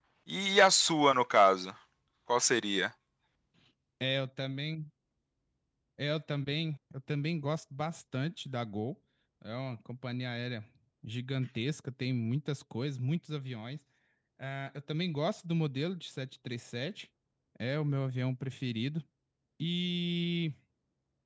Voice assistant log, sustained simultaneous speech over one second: none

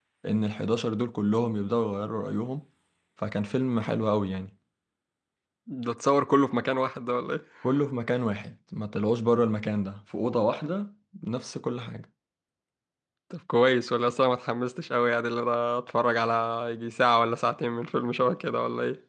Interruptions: none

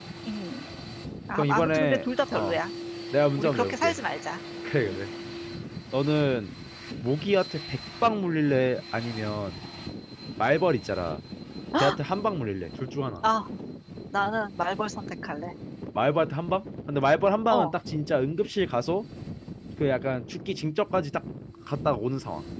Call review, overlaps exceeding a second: present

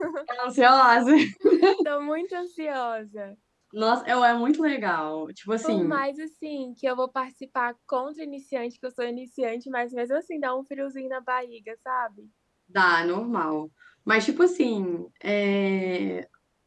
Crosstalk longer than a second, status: none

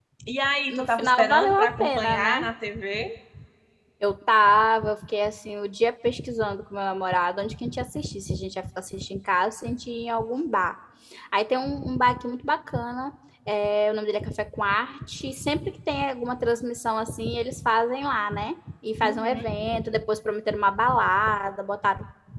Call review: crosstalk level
present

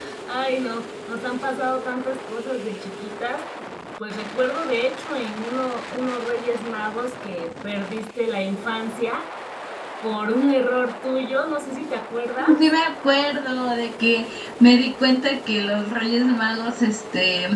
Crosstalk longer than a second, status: none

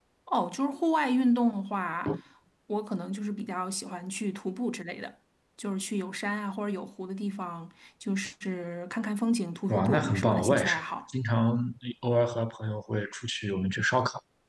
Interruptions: present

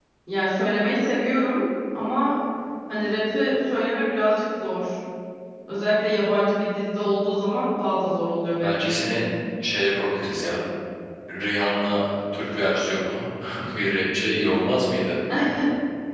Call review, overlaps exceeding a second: none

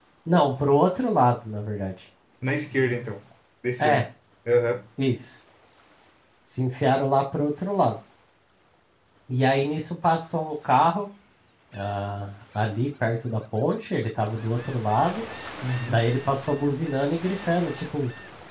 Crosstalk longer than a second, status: none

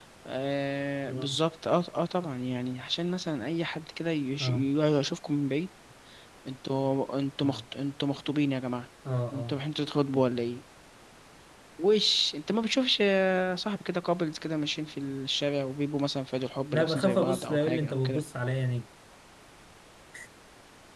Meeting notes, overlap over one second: present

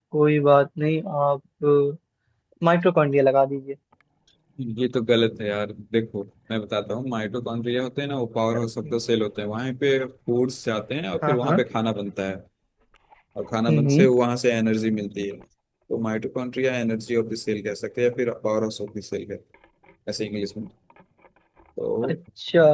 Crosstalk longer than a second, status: none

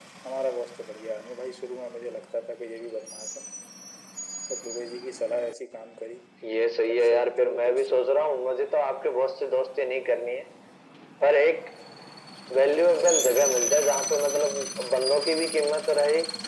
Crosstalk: present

